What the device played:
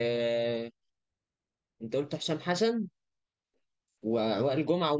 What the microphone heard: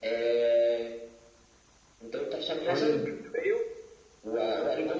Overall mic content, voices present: both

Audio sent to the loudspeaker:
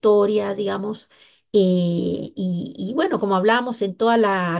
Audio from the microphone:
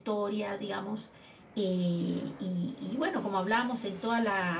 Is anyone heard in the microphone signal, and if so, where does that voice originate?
echo only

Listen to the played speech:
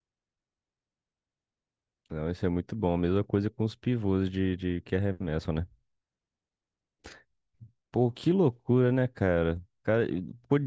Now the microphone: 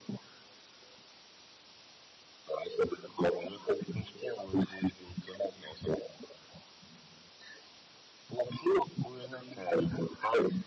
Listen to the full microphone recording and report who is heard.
echo only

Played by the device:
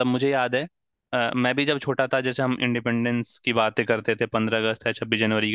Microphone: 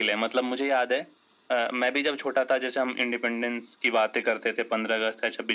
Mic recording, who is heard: echo only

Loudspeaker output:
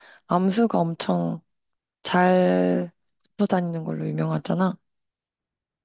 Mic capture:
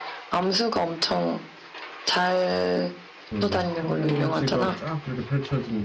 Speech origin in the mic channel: both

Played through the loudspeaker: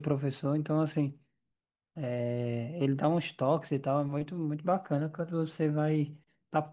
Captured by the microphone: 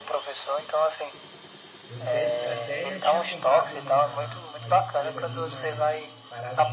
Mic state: both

